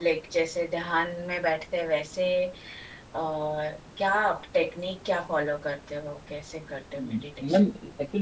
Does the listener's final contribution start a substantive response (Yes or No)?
Yes